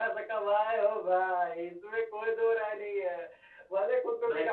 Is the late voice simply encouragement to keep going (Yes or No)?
Yes